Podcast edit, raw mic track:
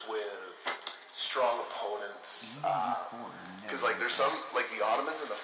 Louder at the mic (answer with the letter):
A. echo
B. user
A